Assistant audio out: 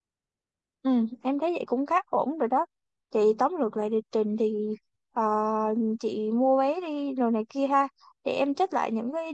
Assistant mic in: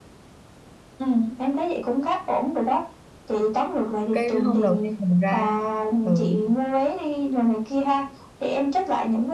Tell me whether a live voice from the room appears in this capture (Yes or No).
Yes